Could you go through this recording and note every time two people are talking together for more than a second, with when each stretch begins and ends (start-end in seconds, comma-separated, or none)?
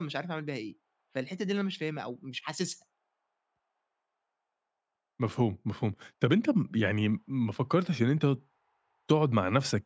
none